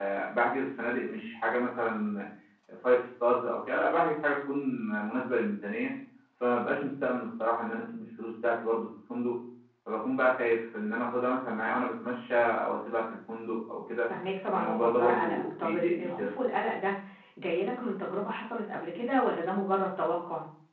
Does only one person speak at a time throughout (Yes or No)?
No